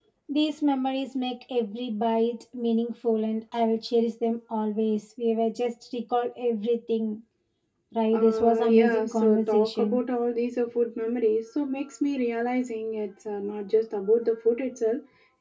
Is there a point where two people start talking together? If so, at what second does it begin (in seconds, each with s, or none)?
8.1 s